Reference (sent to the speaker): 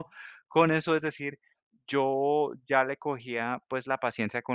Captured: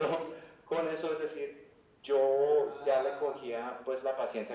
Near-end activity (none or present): present